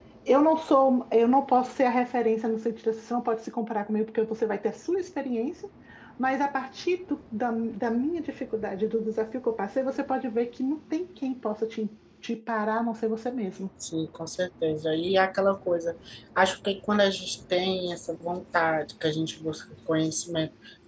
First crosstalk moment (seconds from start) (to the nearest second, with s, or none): none